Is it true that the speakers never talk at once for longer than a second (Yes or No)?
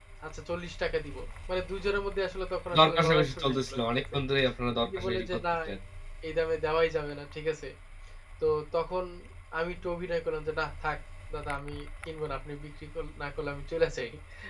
No